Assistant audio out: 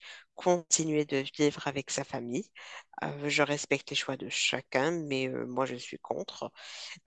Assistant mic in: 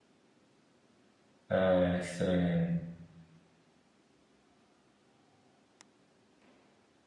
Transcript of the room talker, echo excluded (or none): euh, c'est